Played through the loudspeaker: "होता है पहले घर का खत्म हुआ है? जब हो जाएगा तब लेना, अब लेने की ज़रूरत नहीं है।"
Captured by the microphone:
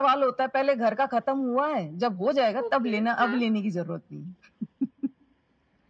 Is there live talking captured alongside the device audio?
Yes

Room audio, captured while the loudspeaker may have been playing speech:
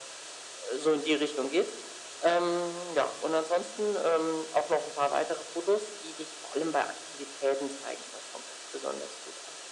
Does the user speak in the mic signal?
No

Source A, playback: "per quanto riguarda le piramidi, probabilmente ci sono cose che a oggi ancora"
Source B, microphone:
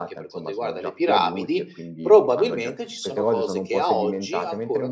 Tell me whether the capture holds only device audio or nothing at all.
No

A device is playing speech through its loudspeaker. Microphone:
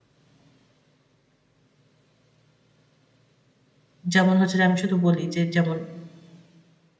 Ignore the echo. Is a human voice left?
Yes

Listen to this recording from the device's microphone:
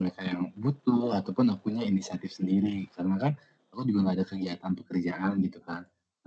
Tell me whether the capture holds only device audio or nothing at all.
Yes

